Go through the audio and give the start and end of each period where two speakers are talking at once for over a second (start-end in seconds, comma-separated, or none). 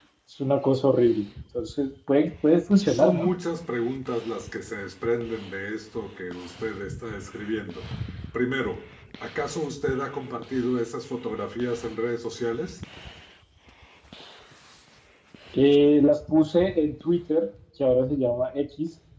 none